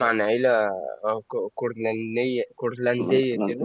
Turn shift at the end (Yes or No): Yes